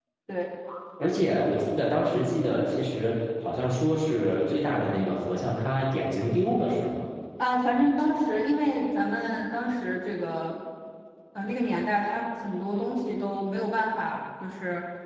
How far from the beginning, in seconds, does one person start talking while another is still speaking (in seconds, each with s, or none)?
none